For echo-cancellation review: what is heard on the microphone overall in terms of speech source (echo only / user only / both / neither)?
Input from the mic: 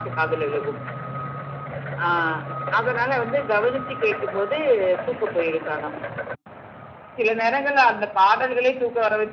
echo only